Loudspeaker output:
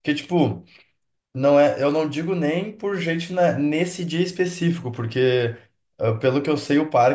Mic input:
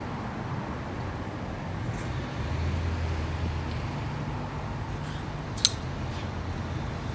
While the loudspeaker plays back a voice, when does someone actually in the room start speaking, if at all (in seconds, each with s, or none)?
none